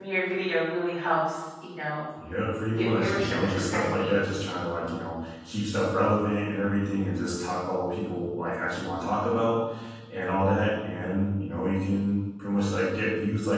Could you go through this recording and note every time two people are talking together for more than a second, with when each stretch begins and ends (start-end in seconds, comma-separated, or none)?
2.7-4.1